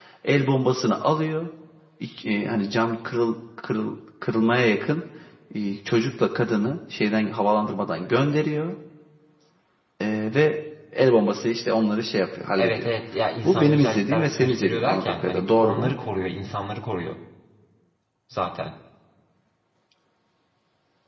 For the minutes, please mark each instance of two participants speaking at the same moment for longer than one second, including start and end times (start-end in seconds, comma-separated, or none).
13.4-15.9